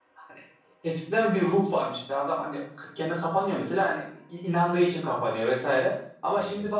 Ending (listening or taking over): listening